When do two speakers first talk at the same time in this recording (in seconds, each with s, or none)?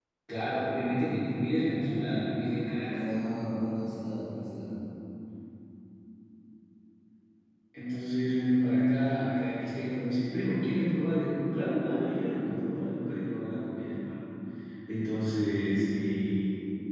1.6 s